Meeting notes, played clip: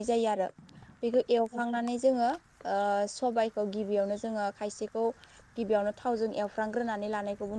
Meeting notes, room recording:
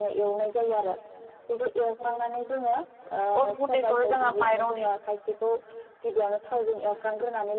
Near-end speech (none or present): present